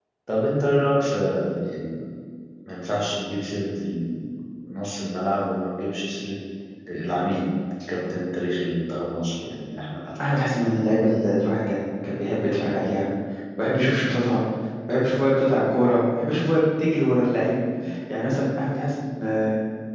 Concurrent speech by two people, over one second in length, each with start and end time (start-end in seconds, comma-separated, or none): none